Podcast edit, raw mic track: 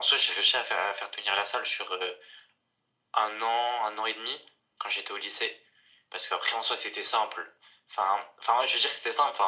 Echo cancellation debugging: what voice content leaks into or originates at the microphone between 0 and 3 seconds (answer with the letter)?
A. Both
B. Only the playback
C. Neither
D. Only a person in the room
B